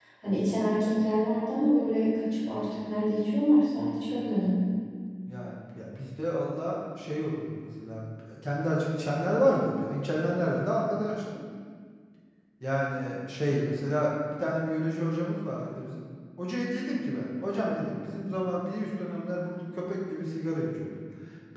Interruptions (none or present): none